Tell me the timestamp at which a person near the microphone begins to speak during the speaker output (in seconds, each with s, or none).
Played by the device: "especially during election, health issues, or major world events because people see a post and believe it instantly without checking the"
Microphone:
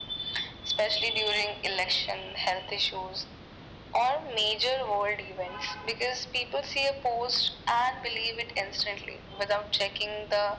none